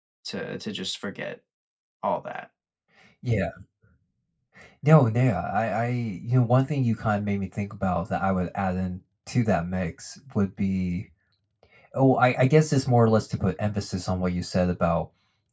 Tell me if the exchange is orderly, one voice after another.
Yes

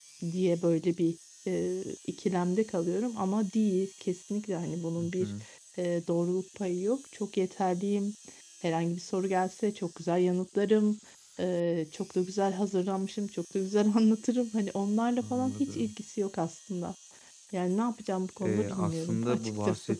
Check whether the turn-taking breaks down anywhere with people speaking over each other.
Yes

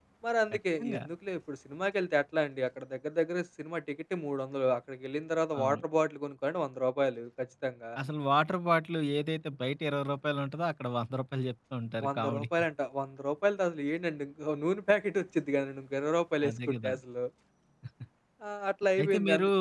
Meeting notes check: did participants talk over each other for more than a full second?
No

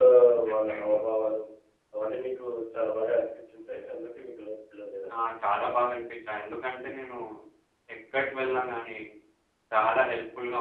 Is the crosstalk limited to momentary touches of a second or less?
Yes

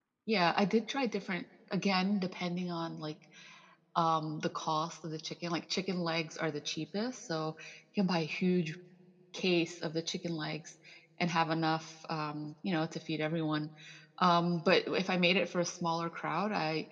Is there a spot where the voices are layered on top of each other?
No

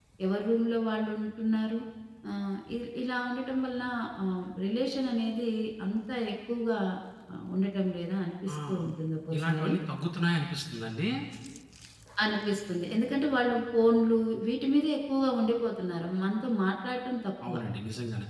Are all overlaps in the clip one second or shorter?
Yes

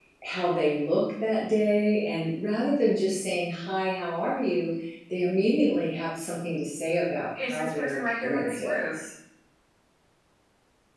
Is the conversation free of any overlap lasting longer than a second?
No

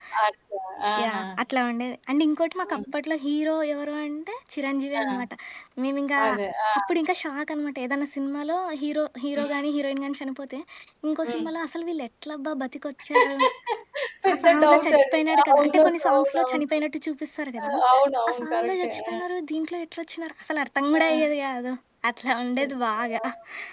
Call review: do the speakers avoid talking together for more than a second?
No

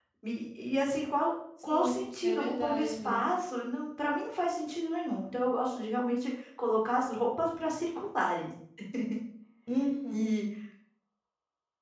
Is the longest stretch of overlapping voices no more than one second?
No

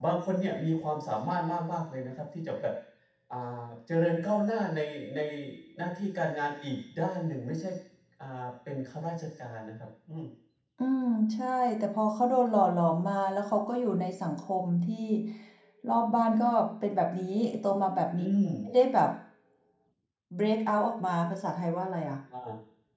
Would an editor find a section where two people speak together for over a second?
No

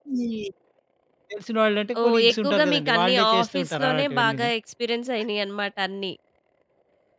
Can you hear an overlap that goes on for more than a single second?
Yes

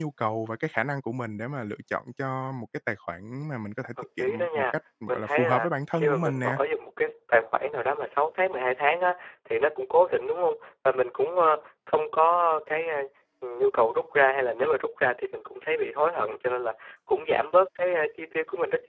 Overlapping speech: Yes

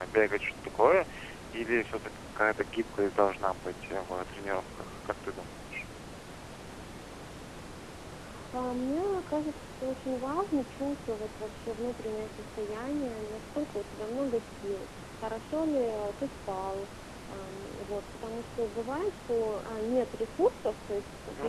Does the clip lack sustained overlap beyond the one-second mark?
Yes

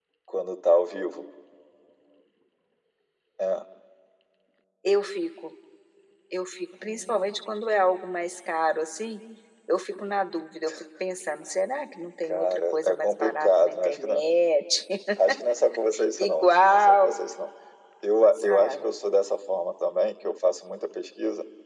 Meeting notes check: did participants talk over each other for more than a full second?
Yes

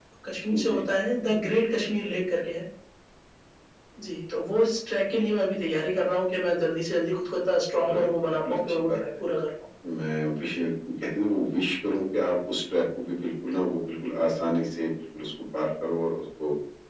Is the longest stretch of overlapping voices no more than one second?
No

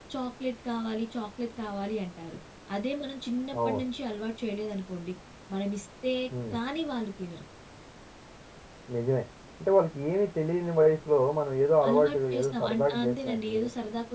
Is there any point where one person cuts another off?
Yes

